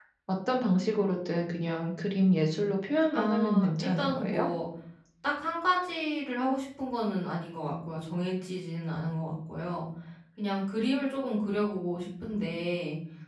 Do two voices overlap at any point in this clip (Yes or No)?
Yes